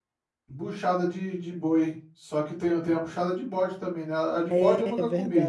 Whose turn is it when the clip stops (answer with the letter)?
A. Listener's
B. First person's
A